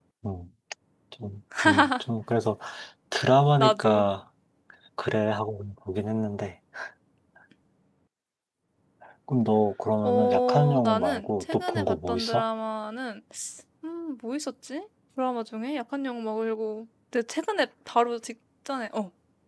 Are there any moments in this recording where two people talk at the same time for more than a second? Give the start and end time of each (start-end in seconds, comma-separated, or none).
10.0-12.4